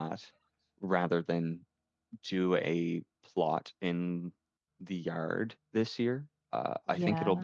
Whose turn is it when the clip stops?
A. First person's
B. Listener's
A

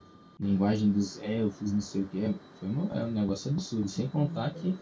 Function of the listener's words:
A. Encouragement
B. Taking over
A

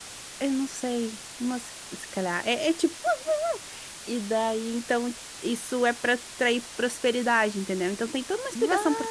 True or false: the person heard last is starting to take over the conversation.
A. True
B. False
B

